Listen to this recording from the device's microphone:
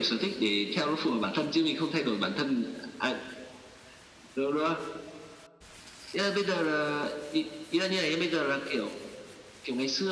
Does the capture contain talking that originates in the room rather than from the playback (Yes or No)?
No